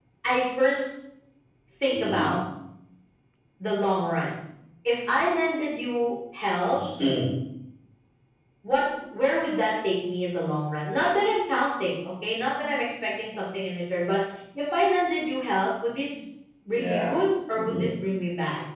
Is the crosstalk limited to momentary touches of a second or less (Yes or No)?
Yes